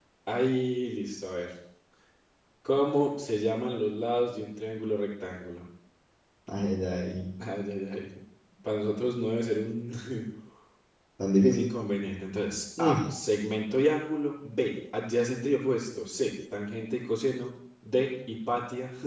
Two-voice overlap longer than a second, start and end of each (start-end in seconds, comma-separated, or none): none